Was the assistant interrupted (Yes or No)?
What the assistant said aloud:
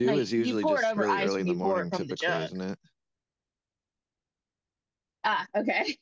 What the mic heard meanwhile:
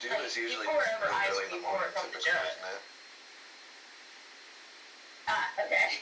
No